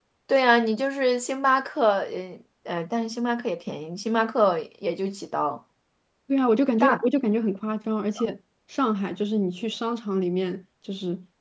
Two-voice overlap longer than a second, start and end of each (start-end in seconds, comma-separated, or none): none